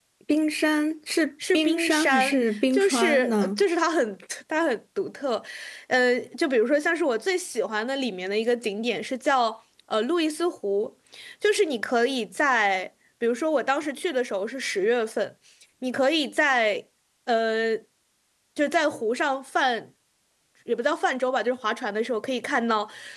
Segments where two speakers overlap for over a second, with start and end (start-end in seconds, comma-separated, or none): 1.5-3.6